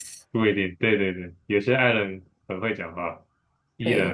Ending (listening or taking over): taking over